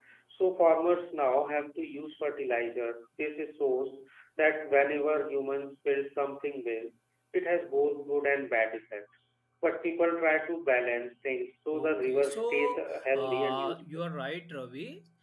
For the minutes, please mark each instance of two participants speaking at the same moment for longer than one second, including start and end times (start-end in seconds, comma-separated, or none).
11.7-14.0